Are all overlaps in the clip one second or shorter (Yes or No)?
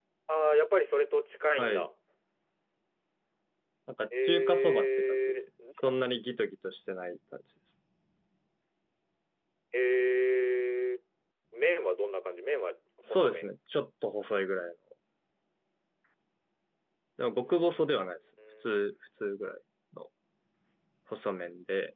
No